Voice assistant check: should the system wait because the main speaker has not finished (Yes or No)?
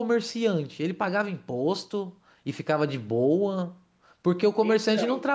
Yes